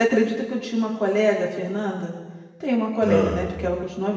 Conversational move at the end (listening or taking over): listening